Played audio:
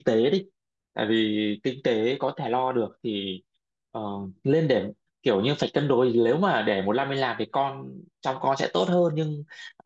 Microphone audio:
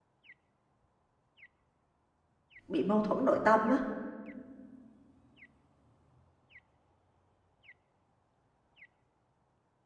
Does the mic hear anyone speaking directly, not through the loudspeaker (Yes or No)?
Yes